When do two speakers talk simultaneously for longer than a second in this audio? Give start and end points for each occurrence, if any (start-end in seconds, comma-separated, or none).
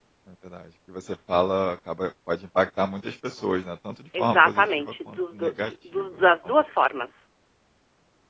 4.2-6.5